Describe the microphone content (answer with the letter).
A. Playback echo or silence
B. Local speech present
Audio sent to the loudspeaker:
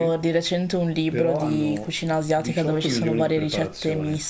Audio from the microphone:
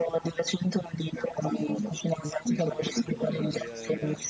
B